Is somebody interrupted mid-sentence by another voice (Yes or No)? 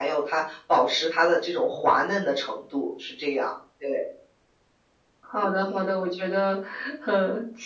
No